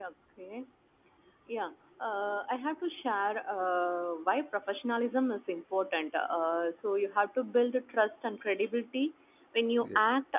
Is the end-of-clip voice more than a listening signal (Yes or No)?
No